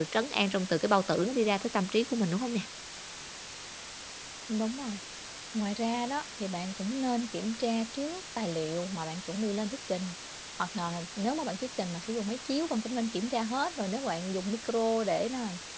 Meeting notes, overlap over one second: none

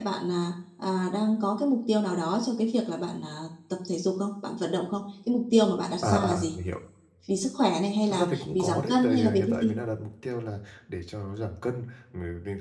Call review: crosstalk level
present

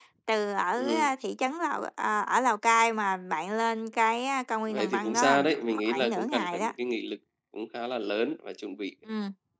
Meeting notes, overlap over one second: present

